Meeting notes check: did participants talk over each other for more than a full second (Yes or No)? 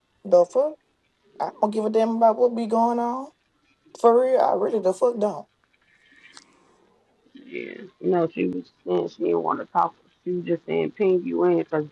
No